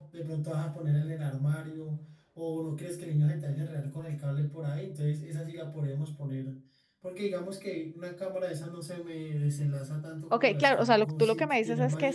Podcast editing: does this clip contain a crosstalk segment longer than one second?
Yes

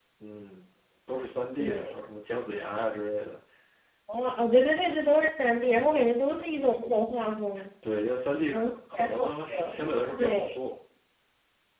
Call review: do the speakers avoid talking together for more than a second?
No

